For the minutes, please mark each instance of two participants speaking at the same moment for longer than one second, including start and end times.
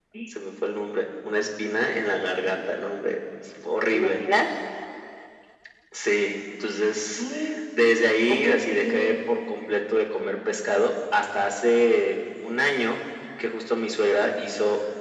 8.3-9.6

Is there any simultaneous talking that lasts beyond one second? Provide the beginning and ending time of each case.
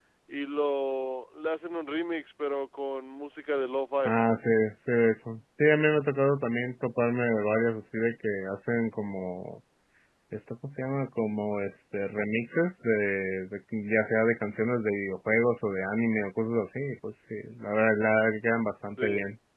none

